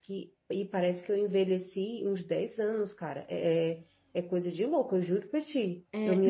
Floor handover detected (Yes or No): Yes